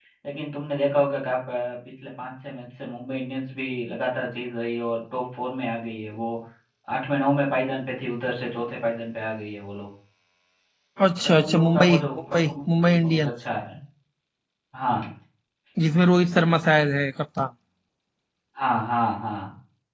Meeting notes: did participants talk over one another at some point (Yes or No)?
Yes